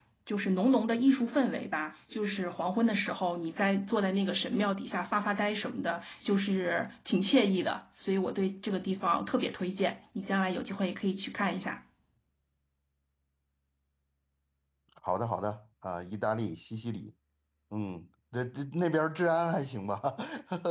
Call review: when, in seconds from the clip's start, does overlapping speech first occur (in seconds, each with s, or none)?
none